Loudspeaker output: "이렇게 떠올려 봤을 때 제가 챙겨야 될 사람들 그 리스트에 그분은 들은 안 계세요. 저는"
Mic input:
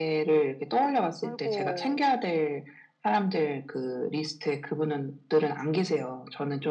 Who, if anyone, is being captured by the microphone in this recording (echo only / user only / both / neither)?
both